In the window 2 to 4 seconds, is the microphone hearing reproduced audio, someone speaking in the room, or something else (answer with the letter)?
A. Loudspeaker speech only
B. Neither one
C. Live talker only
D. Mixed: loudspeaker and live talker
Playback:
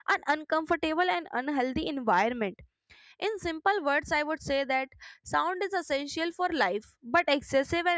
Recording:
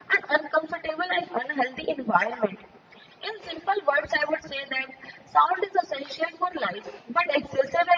A